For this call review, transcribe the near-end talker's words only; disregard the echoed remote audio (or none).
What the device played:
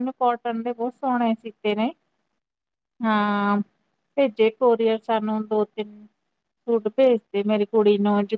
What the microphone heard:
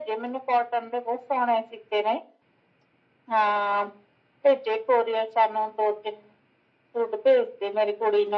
none